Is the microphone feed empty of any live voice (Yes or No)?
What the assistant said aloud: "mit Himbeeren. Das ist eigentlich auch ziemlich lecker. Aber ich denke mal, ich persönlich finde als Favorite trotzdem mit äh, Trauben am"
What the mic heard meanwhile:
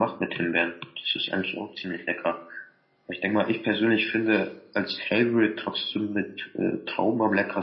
Yes